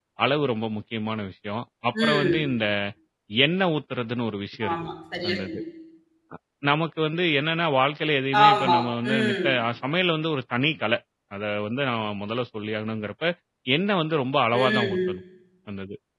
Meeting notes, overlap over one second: none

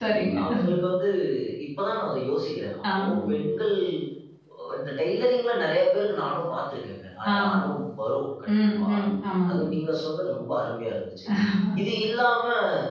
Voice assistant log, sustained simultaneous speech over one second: none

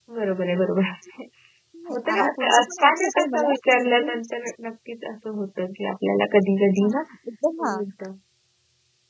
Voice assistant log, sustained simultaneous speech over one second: present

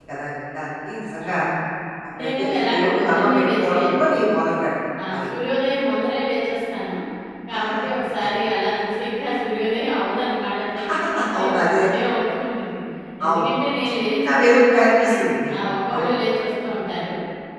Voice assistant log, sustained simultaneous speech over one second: present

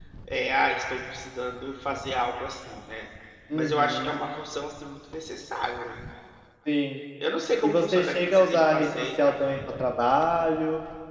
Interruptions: present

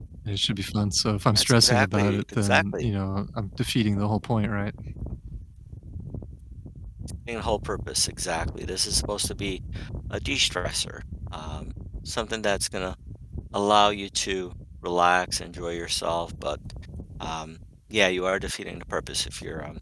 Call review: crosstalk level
present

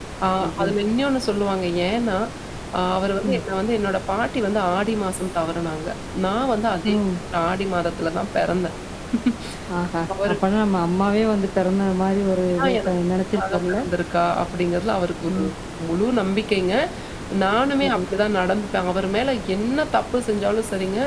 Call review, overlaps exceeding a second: none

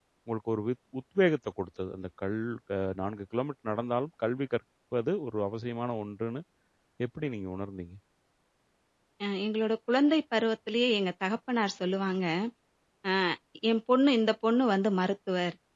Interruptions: none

